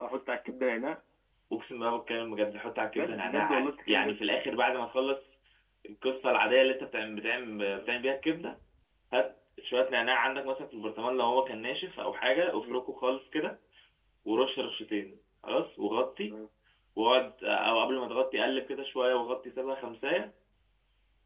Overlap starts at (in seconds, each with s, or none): 2.9 s